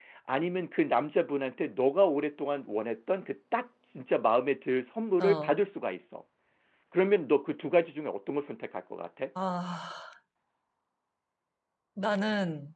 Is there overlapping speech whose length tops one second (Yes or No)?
No